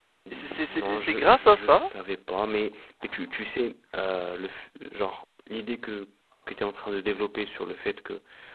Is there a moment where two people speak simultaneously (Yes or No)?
Yes